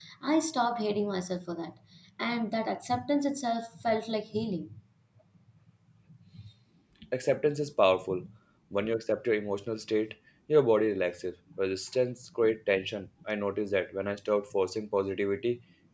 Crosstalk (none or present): none